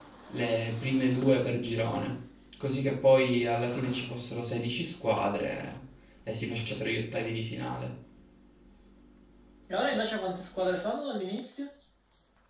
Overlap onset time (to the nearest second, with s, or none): none